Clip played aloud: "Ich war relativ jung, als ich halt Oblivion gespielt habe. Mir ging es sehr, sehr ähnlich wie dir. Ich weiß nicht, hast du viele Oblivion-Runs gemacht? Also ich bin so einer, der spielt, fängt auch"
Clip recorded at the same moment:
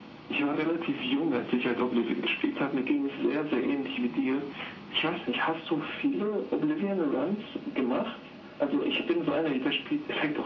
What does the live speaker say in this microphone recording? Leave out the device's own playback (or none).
none